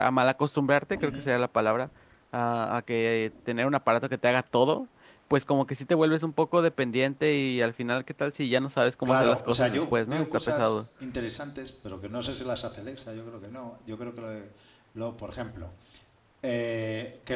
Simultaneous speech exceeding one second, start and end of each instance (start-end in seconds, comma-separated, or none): 9.1-10.8